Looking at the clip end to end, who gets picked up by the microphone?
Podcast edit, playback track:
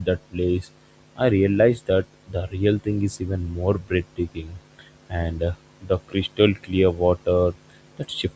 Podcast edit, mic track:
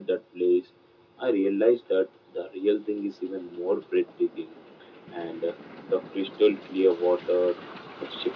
echo only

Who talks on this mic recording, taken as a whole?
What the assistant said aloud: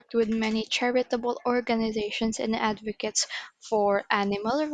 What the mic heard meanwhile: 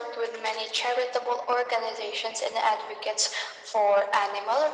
echo only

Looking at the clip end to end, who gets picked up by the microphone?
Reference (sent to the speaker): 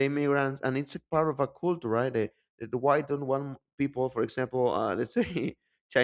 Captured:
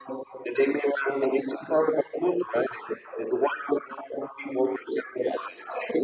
echo only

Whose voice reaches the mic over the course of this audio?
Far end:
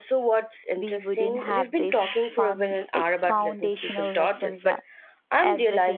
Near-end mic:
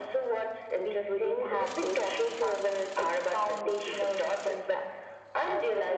echo only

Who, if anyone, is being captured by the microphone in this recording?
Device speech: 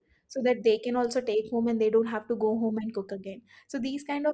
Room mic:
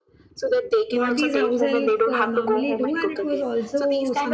both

